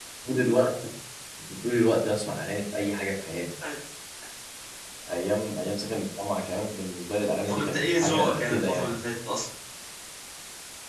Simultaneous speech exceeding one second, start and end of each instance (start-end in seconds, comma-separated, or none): 7.5-9.0